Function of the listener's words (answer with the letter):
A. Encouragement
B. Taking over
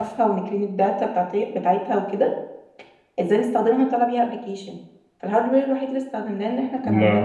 A